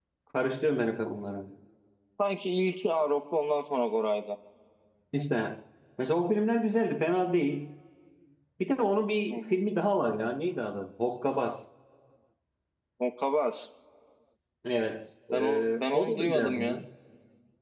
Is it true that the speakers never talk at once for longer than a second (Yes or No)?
No